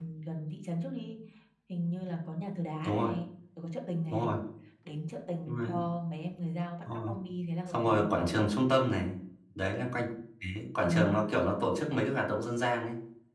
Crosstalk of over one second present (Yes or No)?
No